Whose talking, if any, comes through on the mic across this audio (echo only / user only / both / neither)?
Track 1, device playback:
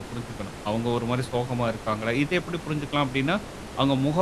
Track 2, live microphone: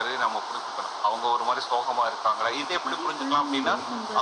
both